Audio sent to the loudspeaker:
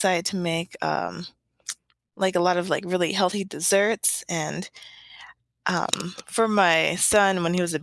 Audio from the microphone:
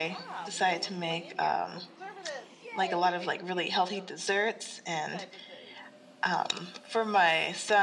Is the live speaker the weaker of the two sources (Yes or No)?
Yes